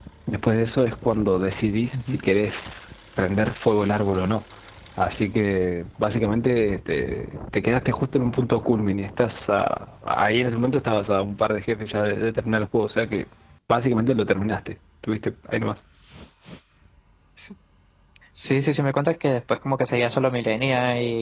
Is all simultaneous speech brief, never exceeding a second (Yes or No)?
Yes